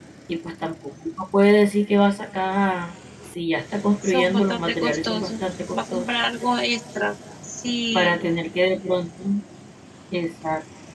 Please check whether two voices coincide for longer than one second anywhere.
Yes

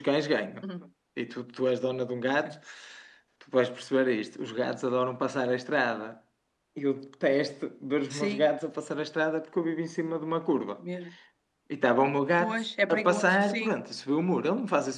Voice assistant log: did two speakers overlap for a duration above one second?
Yes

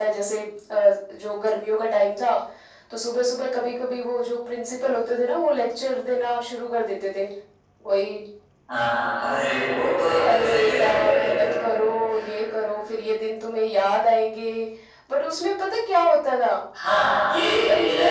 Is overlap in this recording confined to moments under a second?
No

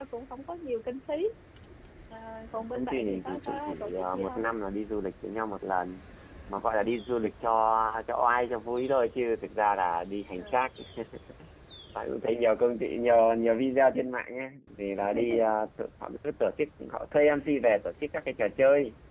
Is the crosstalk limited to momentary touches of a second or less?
No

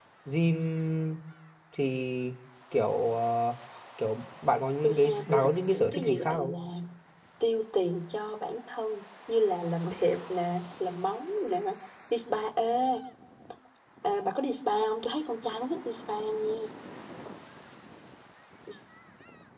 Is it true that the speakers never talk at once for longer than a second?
No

